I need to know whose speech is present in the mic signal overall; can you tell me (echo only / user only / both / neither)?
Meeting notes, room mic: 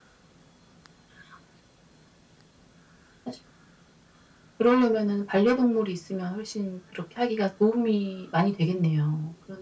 echo only